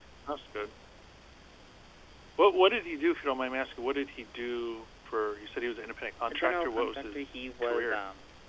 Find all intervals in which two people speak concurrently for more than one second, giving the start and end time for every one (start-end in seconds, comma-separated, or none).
6.3-8.0